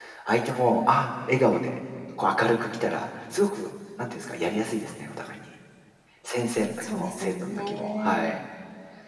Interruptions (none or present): present